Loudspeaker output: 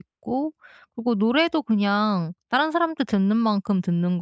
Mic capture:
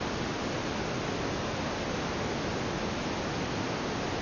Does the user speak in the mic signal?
No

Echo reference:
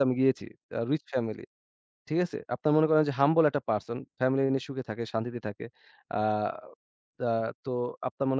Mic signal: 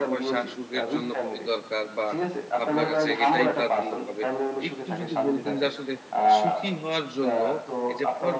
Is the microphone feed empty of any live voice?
No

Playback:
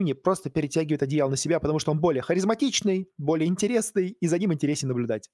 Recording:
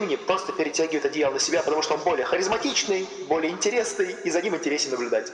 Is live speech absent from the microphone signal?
Yes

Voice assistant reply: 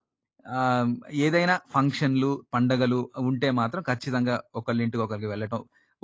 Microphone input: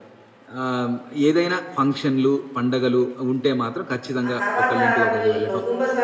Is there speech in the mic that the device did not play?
Yes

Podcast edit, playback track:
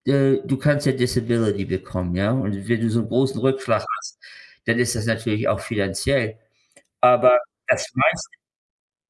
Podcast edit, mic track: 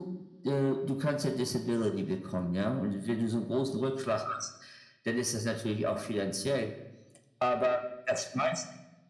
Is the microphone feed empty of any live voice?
Yes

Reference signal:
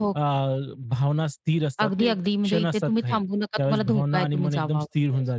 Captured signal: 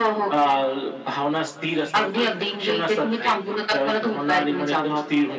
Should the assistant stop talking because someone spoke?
No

